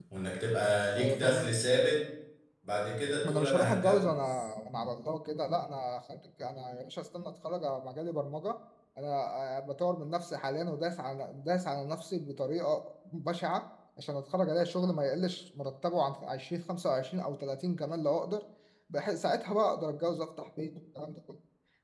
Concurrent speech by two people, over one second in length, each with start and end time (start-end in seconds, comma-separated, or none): 3.2-4.5